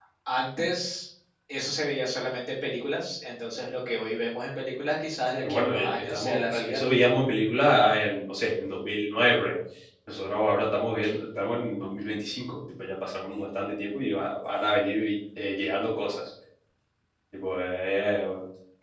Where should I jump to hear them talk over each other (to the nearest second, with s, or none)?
5 s